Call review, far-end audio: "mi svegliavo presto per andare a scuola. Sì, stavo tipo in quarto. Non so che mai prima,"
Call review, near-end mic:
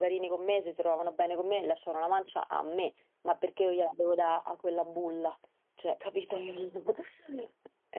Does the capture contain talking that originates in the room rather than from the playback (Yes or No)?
Yes